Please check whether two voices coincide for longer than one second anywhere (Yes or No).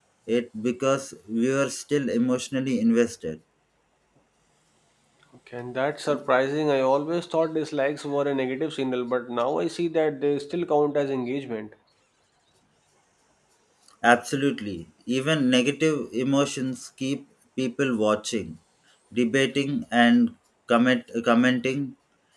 No